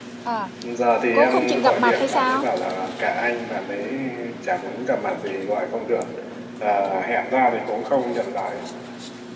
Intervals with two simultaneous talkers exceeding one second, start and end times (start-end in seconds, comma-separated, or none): 1.1-2.4